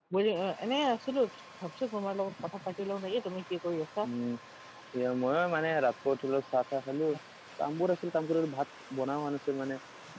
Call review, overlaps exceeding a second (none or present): none